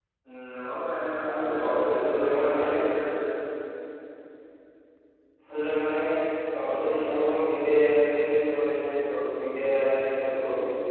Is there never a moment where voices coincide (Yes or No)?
No